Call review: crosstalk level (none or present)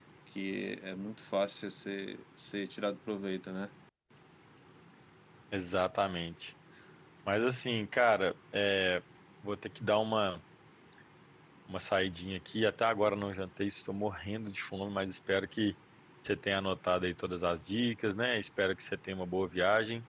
none